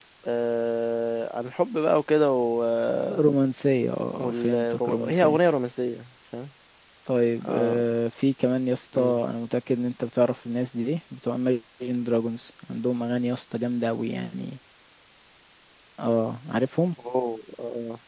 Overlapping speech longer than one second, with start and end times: 4.1-5.4

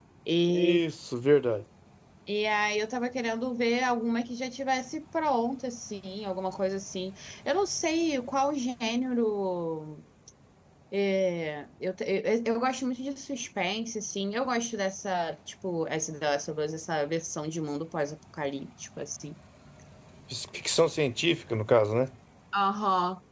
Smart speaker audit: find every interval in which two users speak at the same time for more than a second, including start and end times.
none

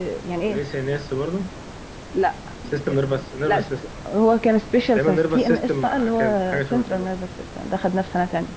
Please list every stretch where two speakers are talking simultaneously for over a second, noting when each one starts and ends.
5.0-7.1

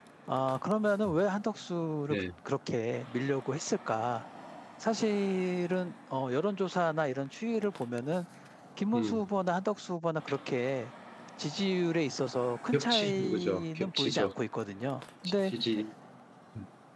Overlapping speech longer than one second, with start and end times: 12.7-14.3

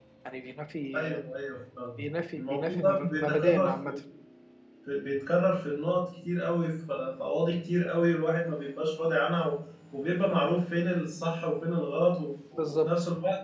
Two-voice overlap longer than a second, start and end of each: 2.4-3.9

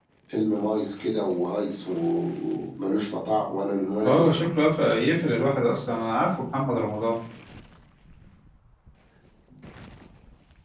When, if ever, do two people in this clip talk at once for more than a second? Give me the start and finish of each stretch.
none

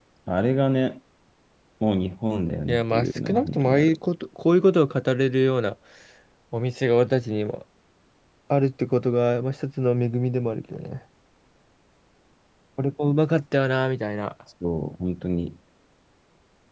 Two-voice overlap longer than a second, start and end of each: 2.7-4.0

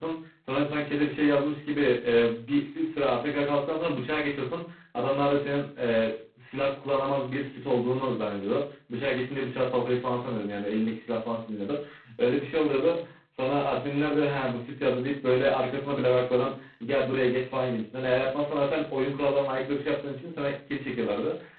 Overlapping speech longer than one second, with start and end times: none

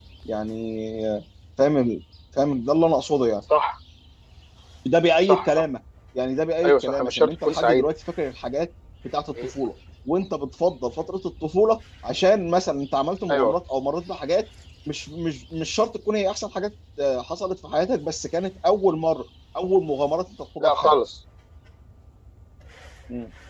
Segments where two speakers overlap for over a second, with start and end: 6.7-7.9

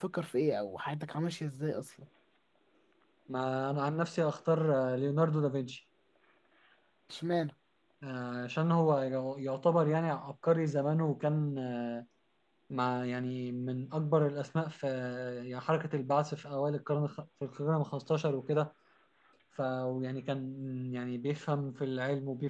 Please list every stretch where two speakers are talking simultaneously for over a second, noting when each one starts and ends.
none

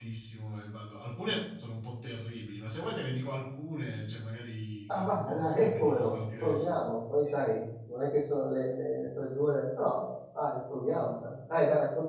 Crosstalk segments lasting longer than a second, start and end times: 4.9-6.7

